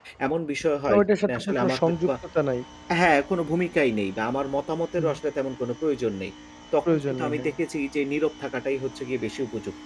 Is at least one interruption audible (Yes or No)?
Yes